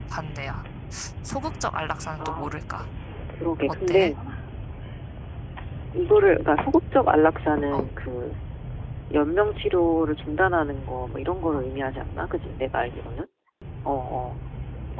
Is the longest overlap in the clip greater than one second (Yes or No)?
No